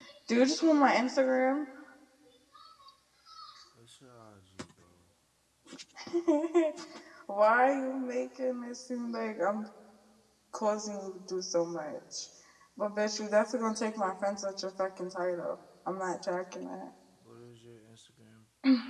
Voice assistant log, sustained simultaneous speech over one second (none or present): none